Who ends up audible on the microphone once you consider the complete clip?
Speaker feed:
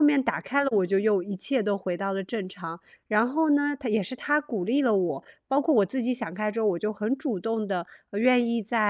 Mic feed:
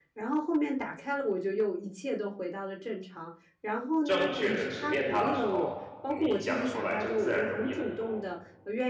both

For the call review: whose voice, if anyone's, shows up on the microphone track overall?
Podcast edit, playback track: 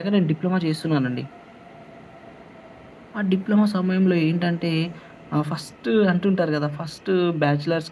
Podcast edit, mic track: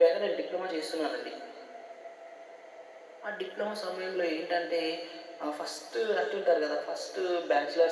echo only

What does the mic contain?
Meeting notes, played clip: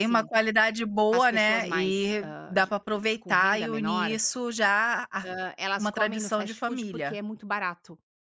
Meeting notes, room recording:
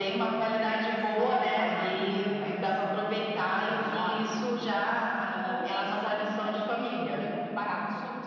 both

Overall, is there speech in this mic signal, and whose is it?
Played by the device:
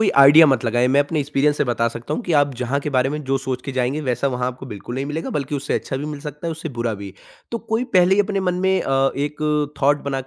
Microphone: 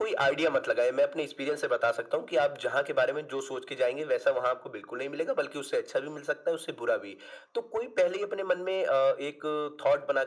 echo only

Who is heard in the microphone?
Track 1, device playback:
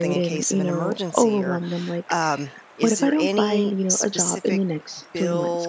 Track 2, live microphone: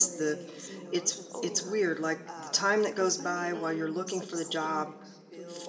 both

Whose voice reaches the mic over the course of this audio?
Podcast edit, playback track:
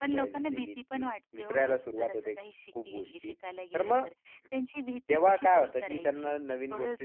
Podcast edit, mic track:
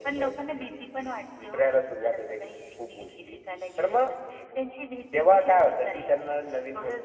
echo only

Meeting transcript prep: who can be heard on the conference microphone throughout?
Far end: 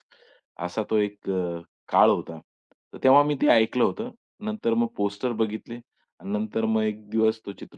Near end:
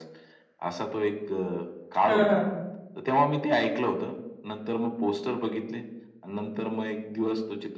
both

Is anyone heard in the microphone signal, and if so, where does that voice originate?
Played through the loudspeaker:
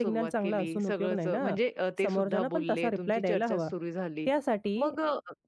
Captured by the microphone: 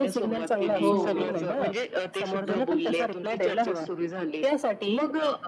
both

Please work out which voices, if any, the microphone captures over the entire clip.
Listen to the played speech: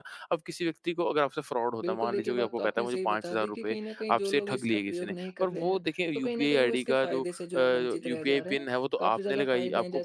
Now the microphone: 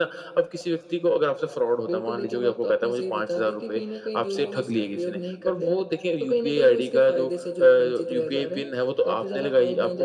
echo only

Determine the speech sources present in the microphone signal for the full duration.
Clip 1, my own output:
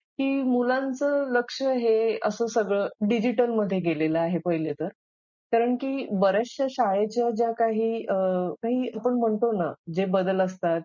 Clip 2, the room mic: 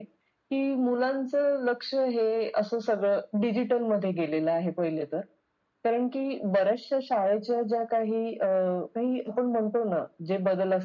echo only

